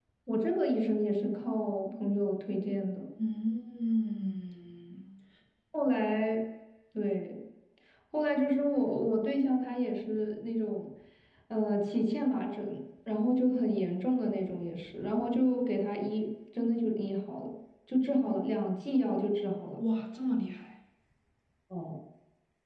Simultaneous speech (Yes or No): No